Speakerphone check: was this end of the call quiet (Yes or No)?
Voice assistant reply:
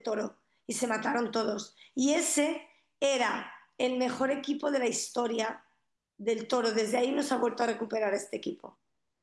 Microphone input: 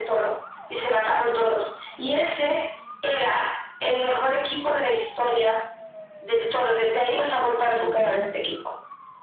No